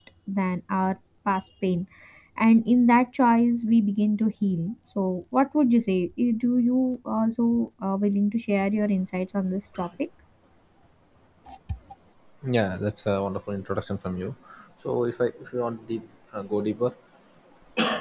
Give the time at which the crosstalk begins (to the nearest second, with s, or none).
none